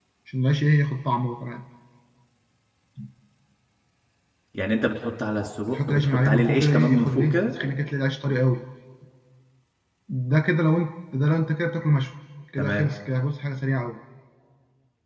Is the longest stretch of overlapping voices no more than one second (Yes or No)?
No